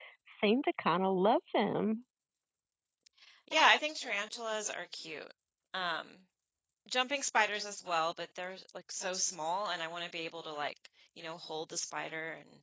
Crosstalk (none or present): none